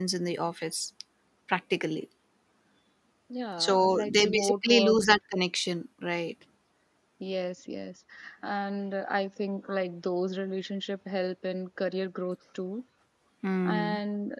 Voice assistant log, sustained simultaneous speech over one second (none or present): present